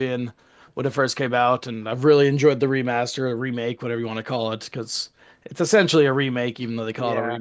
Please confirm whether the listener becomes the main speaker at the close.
Yes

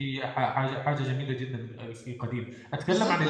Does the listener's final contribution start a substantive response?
Yes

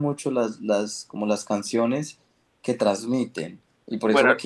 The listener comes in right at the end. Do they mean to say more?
No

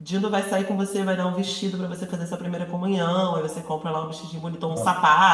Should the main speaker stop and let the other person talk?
No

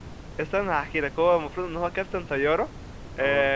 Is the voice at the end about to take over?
No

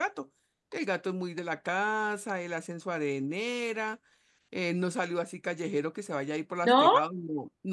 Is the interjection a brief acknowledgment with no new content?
Yes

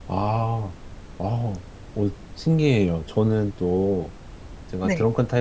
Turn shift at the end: No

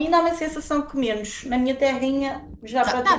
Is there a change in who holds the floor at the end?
Yes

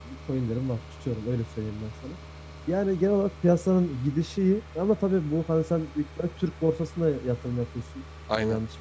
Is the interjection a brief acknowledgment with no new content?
Yes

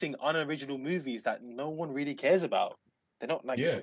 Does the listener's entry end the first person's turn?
Yes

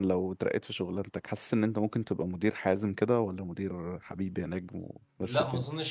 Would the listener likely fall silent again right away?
No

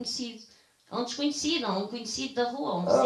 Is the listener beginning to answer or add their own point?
No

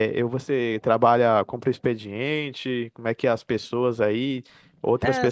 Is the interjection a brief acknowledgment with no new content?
Yes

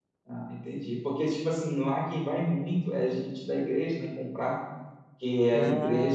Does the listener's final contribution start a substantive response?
No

